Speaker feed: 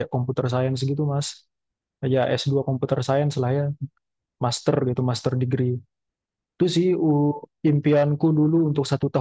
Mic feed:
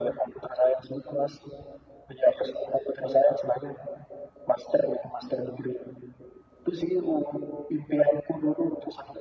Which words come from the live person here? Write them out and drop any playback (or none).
none